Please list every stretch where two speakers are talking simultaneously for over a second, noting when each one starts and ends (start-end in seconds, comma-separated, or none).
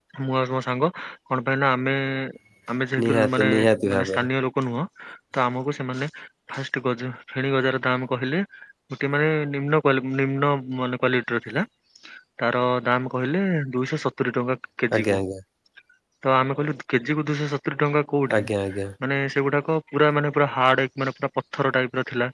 3.0-4.3